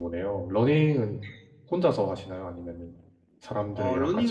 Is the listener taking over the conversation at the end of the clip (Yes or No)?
Yes